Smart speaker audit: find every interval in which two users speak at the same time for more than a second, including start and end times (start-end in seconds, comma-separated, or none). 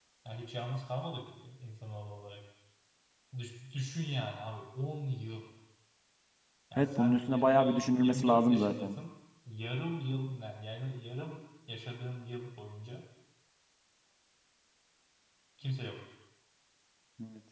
6.8-8.9